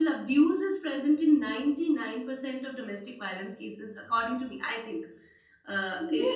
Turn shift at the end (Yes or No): Yes